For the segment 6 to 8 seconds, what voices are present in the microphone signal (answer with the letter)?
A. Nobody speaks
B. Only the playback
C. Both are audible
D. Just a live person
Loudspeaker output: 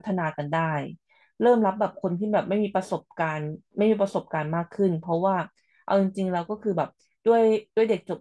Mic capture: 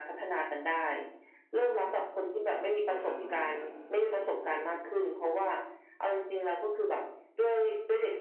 B